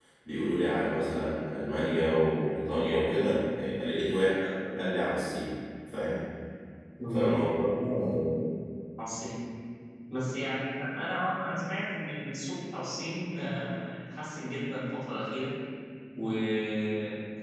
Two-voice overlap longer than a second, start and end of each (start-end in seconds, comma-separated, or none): none